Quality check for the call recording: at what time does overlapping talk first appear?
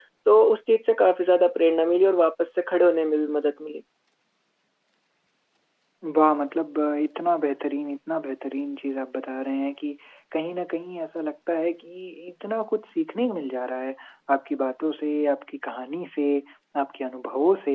none

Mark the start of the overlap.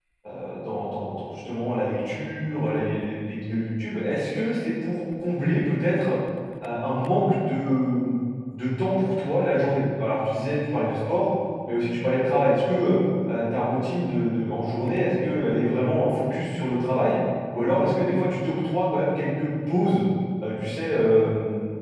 none

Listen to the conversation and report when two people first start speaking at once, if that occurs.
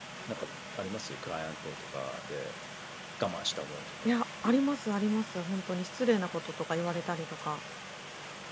none

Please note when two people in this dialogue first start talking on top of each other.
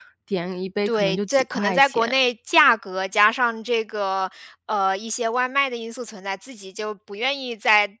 1 s

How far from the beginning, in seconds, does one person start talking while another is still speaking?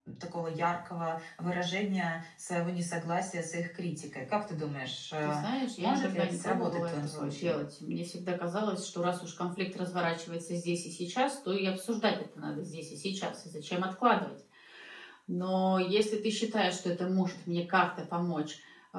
5 s

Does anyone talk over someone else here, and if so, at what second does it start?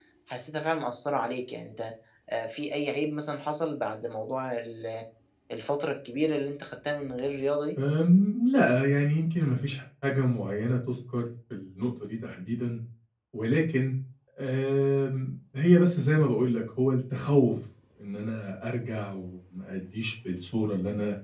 none

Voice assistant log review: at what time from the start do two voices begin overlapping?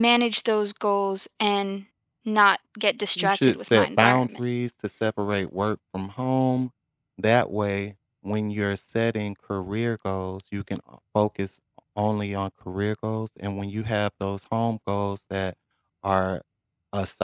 3 s

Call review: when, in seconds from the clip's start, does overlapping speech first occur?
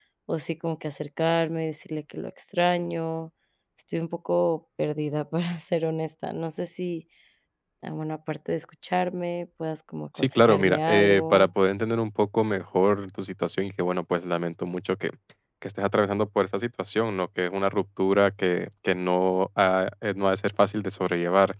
10 s

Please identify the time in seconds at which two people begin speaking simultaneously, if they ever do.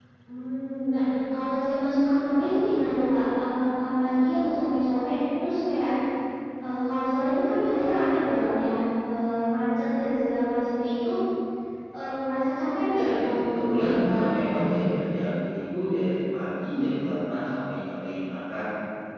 13 s

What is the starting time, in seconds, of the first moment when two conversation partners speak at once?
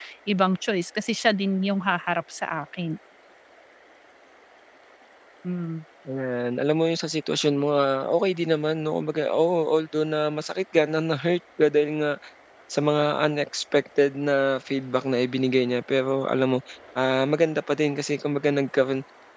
none

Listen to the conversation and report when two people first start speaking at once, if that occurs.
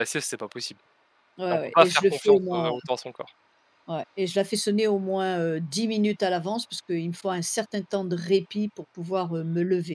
2 s

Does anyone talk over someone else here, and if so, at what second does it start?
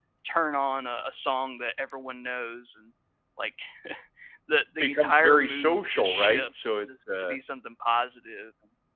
5 s

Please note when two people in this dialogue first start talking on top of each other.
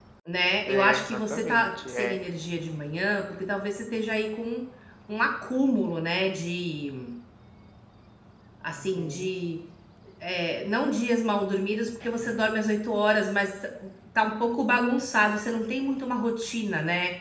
1 s

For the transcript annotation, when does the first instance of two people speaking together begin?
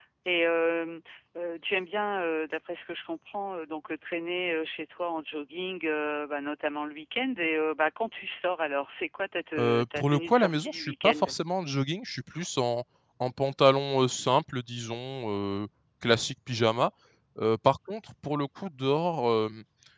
10 s

